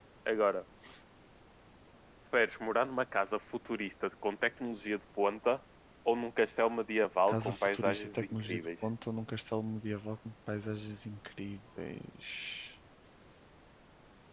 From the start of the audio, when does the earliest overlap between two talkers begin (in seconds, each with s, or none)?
7.3 s